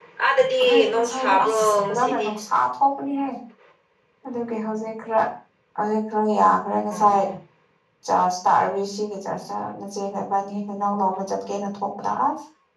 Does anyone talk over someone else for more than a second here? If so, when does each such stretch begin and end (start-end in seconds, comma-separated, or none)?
0.7-2.3